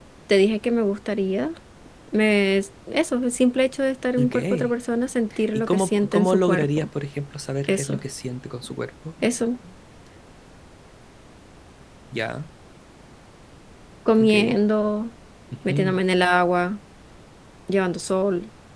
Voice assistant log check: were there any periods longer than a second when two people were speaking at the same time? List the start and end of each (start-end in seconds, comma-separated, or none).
5.5-6.9